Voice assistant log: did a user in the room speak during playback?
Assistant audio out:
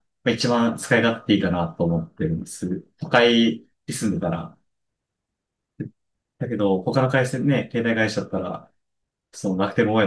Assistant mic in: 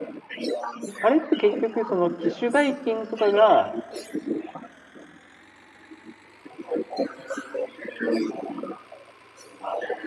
Yes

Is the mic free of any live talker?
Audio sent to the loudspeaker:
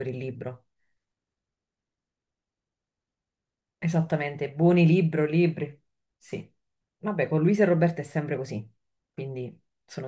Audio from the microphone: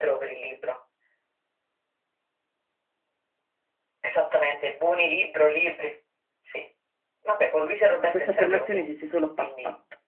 No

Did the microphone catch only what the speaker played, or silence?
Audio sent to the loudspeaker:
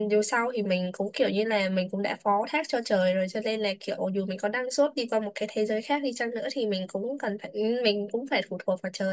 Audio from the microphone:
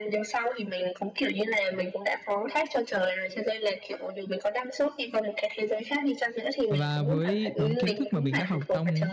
No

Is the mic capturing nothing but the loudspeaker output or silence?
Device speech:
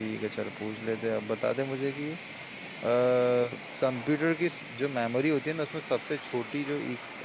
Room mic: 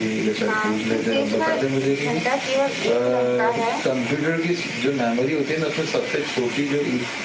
No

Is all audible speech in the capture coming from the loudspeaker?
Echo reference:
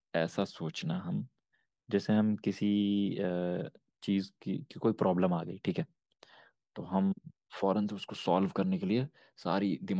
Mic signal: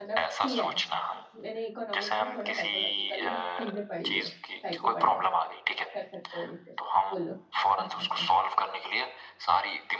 No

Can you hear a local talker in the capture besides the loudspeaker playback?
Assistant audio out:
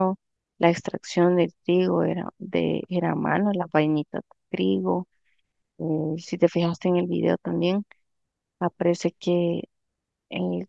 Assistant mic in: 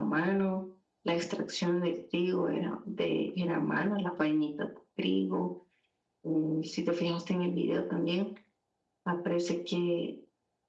No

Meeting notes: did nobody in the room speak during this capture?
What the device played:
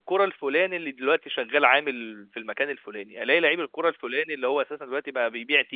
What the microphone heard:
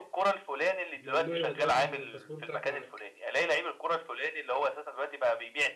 No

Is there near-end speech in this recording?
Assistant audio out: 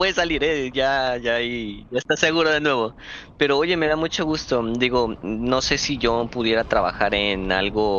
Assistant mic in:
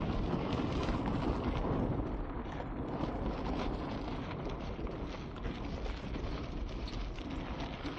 No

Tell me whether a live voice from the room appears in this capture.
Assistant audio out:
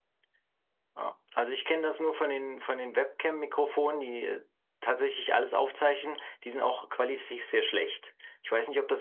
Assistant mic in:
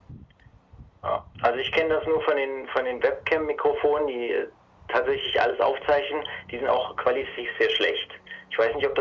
No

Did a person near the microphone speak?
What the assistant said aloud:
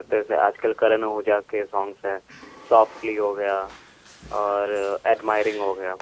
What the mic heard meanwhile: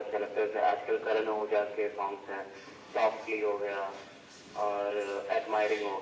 No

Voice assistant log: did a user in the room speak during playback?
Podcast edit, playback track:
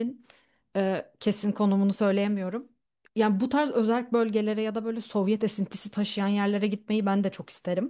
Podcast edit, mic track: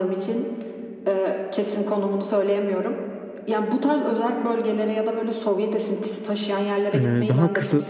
Yes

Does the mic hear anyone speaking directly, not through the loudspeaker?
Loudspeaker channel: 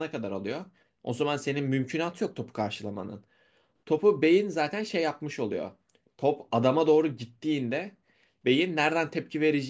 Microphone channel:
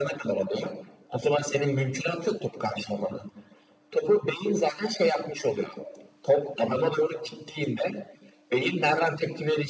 No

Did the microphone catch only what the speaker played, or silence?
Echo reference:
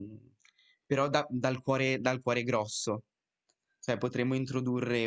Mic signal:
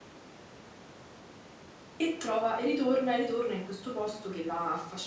No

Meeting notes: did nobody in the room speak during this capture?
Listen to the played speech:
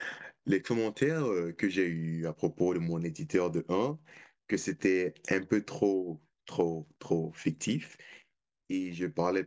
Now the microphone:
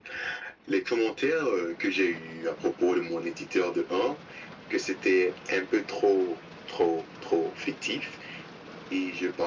Yes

